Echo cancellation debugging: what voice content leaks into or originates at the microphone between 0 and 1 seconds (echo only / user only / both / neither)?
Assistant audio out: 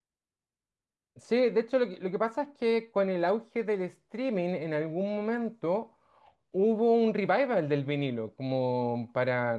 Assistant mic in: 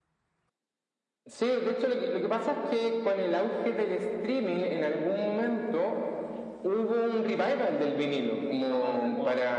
neither